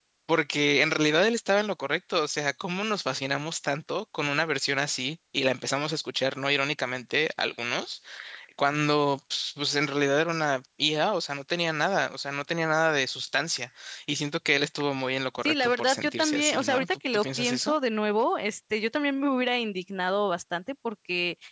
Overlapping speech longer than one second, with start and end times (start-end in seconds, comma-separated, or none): 15.4-17.7